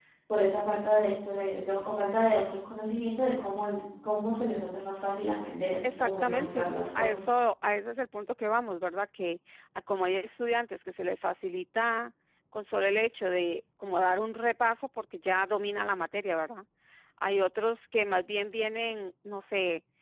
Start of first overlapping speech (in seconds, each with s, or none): 5.8 s